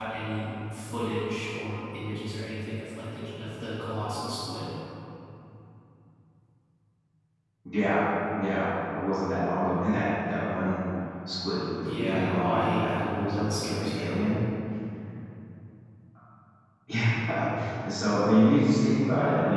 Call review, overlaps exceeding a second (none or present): present